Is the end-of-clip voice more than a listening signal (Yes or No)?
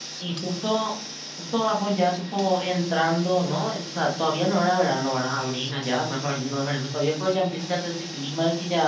No